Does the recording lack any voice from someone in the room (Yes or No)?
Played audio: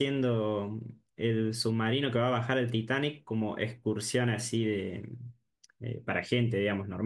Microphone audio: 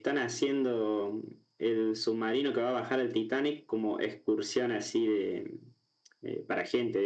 Yes